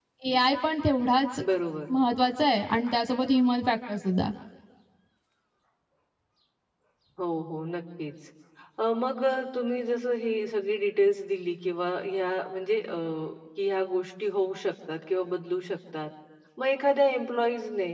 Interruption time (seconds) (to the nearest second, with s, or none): none